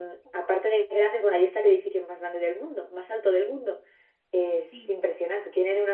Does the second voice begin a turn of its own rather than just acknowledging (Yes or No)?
No